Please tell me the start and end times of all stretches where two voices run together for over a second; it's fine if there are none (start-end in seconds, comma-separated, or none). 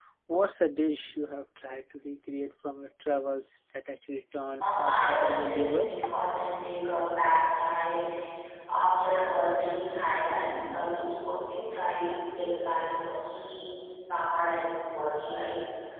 4.6-5.9